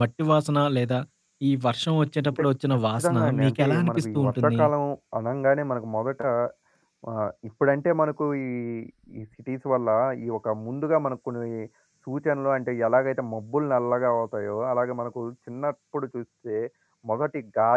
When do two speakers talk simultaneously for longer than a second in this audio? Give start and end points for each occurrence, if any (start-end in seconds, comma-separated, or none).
2.3-4.6